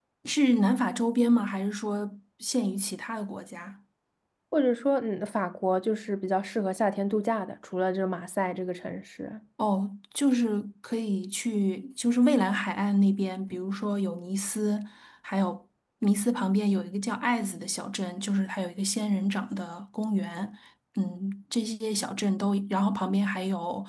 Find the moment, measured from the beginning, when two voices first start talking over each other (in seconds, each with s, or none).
none